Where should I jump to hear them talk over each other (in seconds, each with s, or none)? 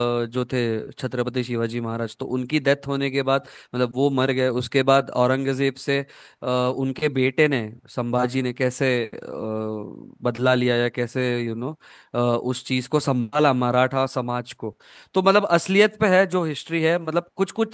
none